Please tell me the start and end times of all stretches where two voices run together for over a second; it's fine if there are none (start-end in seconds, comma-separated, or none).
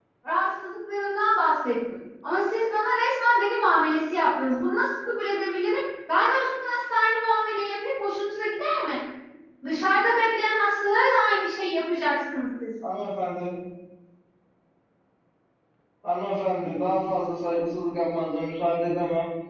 none